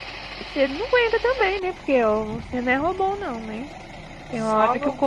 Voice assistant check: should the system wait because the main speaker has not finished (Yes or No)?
Yes